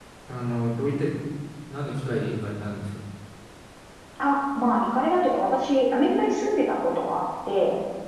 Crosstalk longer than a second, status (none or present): none